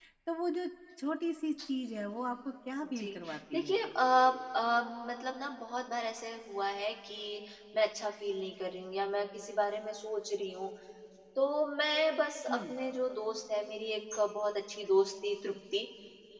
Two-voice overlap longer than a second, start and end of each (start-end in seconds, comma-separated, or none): none